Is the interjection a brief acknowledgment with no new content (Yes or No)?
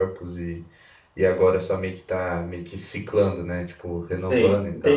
No